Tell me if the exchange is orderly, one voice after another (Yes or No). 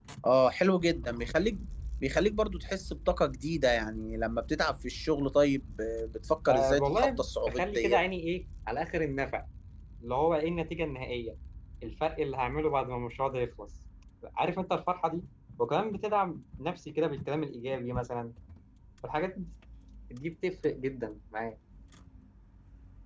No